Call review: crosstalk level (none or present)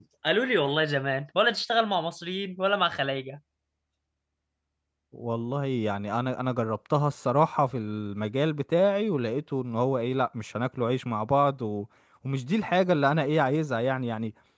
none